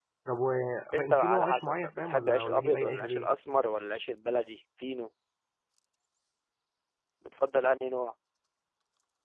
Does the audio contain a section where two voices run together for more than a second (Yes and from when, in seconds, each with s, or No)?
Yes, from 0.9 s